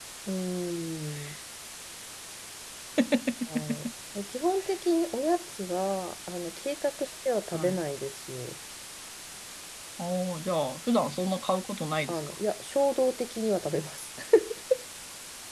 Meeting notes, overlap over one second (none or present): none